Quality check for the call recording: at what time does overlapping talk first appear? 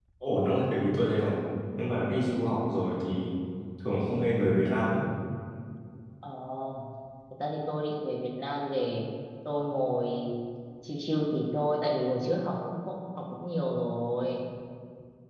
none

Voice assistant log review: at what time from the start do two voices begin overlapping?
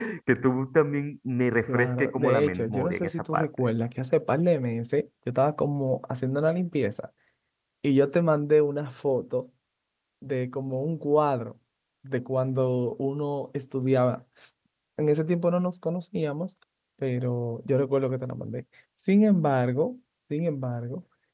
1.7 s

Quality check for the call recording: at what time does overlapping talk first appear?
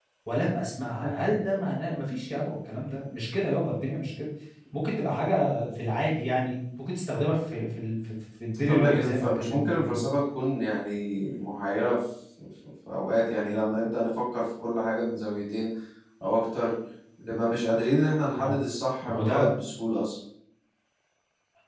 8.7 s

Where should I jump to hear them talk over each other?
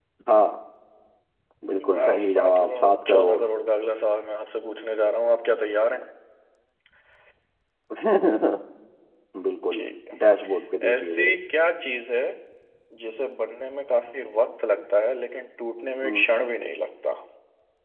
1.9 s

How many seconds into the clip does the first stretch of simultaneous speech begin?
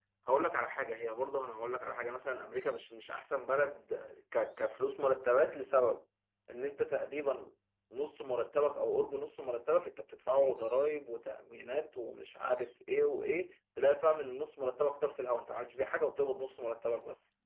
none

